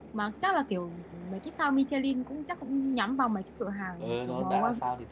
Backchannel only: No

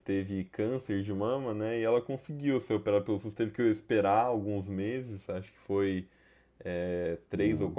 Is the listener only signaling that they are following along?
Yes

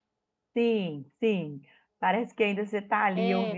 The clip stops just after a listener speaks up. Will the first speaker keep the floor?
No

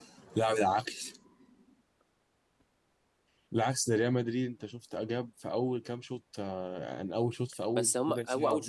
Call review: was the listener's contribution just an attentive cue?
No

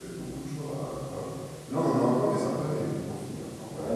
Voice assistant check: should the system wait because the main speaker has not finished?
No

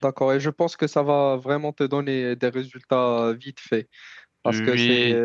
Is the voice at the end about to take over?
No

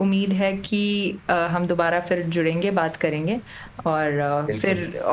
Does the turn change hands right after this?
No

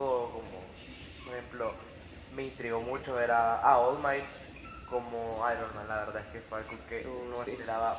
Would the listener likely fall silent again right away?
Yes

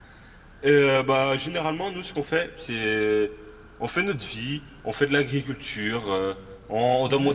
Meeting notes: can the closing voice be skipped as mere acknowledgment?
Yes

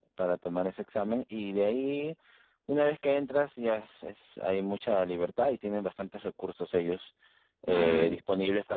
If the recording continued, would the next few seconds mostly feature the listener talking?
No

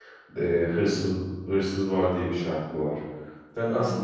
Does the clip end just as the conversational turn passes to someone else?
No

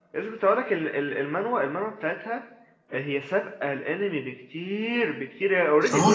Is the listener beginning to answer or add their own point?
Yes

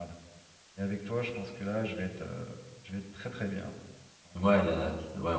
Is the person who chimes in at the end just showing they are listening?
No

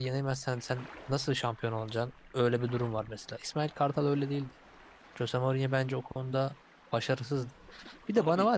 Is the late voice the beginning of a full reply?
No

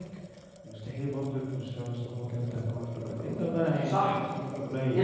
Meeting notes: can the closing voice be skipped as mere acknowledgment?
No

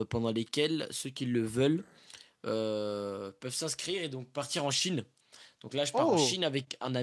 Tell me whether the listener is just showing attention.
Yes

